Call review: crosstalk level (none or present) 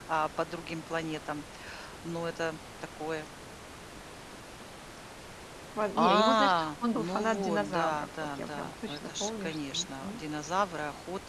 present